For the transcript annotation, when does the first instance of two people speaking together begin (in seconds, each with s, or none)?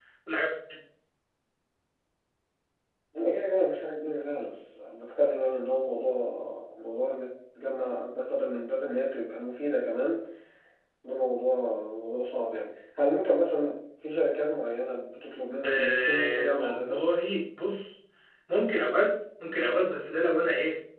15.6 s